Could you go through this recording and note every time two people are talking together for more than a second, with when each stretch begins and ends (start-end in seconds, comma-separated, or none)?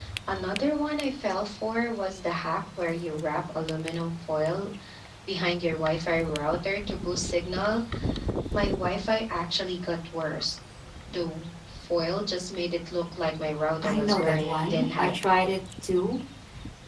13.8-15.1